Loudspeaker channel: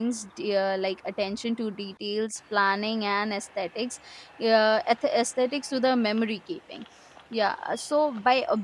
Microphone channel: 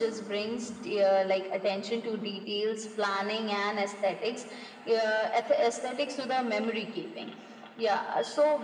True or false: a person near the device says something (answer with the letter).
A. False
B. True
A